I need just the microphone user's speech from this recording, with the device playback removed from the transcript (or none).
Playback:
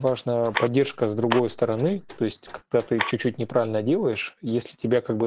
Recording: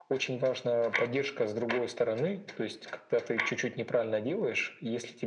none